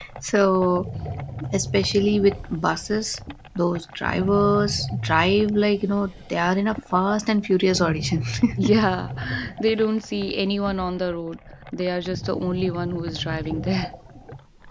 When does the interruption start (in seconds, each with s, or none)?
none